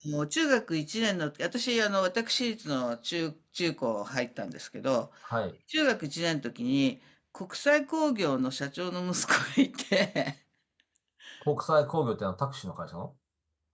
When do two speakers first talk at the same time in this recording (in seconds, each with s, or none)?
none